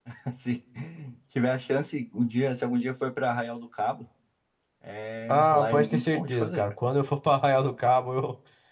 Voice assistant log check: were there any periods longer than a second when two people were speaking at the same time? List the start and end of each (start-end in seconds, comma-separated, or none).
5.3-6.6